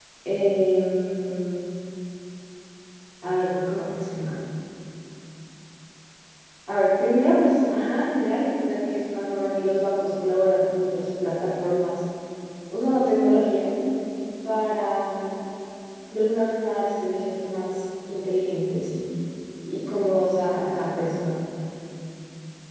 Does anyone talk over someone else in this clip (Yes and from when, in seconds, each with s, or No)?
No